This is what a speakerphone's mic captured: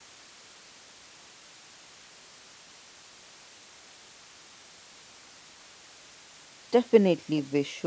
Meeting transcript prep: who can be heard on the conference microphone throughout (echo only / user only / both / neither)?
user only